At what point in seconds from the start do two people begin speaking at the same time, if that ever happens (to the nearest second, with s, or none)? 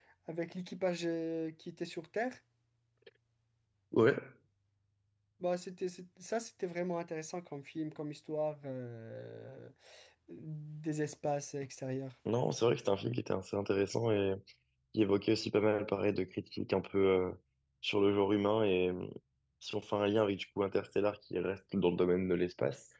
none